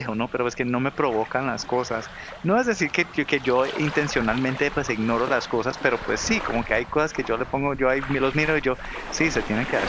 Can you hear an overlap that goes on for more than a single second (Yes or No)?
No